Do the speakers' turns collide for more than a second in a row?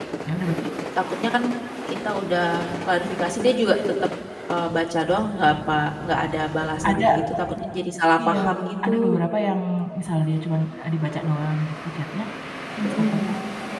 No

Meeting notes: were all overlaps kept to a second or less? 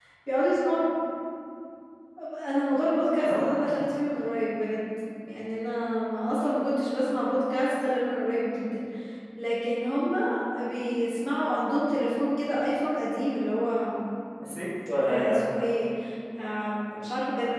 Yes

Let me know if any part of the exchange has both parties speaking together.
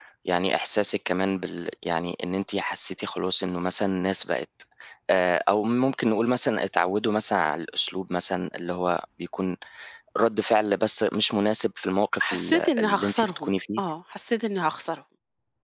Yes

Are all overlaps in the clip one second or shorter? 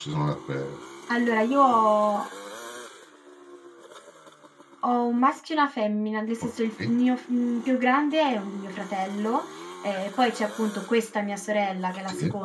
Yes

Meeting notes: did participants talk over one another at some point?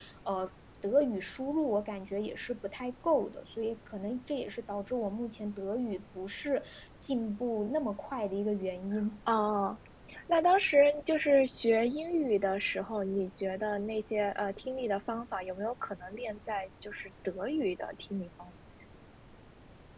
No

